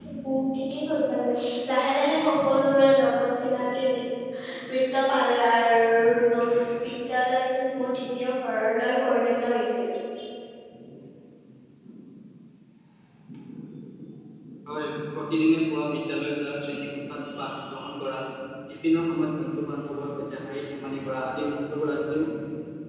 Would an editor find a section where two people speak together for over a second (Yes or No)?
No